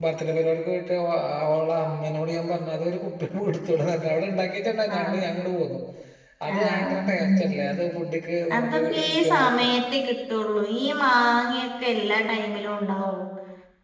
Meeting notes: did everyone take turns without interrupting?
No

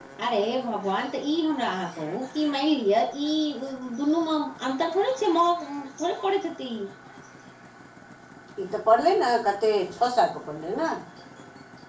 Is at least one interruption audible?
No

